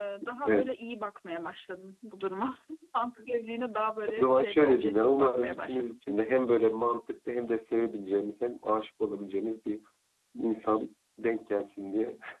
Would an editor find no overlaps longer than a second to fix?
No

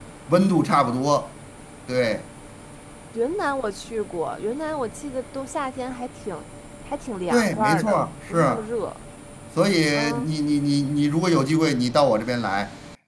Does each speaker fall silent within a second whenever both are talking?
No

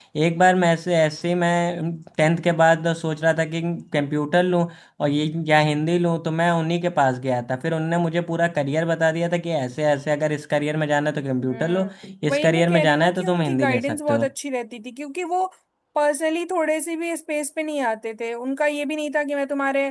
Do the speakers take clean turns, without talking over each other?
No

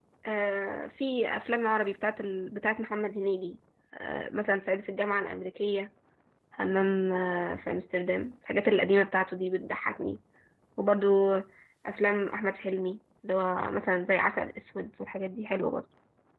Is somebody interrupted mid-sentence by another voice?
No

